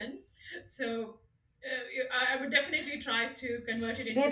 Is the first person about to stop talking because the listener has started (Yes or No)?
Yes